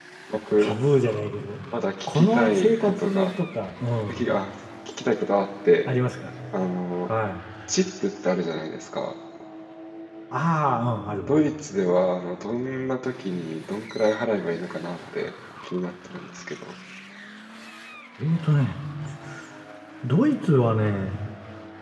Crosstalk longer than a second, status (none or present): present